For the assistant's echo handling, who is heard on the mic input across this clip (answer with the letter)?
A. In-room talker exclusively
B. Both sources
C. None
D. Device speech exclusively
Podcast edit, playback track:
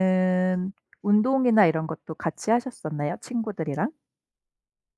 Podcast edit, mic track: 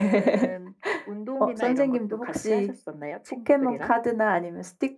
B